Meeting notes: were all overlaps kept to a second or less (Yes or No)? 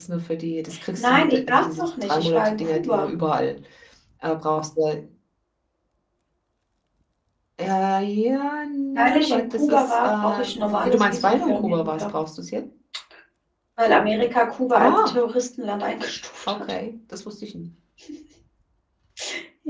No